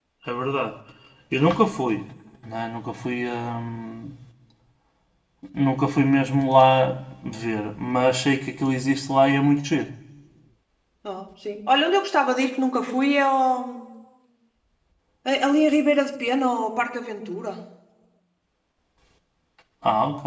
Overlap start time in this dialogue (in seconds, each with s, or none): none